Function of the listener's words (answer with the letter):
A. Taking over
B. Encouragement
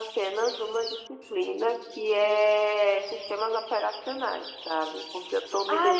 A